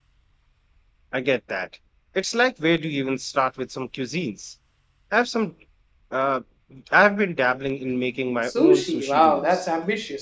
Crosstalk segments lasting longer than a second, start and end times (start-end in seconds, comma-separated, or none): 8.5-9.7